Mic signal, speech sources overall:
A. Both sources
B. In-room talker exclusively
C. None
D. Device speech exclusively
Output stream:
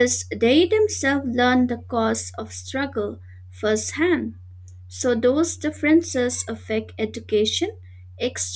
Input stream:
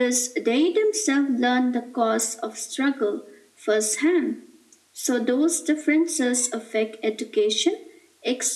D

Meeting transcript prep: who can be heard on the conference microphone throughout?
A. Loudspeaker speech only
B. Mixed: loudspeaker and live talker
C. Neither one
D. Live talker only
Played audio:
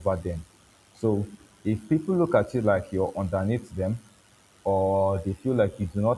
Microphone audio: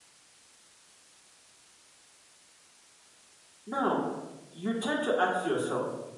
D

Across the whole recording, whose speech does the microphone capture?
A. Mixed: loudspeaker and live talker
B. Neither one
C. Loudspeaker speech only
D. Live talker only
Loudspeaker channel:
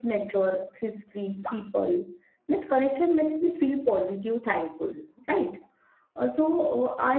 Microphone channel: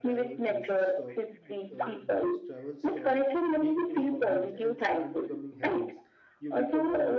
A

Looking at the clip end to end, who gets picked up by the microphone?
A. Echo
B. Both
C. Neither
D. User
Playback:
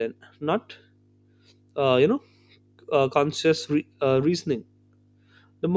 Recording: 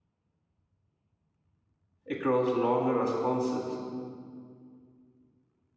D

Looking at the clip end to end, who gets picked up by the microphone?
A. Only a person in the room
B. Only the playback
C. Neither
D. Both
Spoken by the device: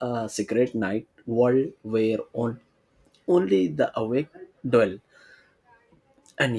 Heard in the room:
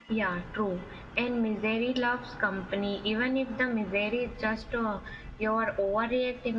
A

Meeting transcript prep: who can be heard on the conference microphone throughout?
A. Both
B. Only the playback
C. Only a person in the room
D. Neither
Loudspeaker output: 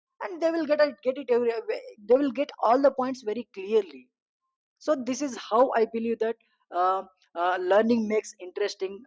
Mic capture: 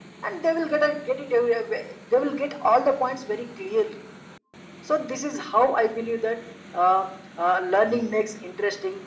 B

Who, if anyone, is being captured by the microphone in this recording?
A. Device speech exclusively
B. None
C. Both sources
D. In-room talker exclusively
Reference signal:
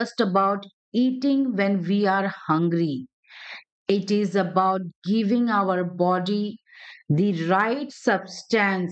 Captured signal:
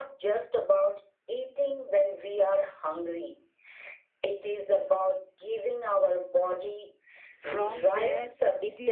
C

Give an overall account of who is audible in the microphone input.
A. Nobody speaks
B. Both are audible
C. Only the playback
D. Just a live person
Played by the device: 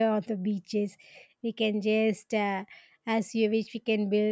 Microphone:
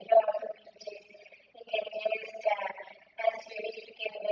C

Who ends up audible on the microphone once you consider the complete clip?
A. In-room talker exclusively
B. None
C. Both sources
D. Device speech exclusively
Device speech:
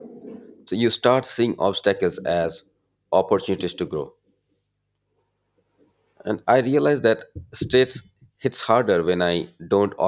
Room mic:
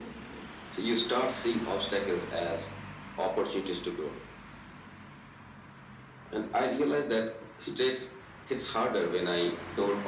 D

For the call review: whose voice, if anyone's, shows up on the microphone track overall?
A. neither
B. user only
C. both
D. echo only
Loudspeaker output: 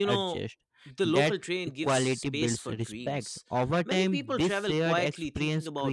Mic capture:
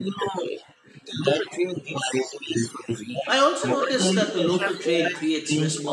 C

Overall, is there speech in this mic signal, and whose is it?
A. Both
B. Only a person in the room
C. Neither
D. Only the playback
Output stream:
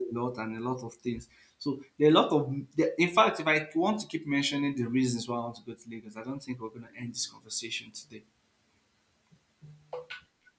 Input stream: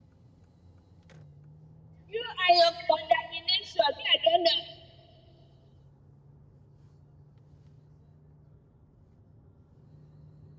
B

